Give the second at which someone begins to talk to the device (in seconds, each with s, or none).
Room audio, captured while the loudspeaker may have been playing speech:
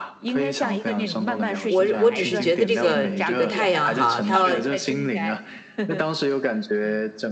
1.7 s